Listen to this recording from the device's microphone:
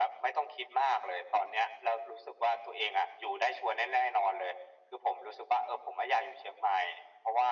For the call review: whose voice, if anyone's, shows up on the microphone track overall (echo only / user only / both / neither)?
echo only